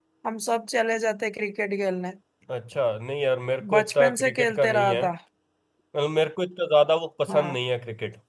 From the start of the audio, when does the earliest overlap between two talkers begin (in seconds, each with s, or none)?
3.6 s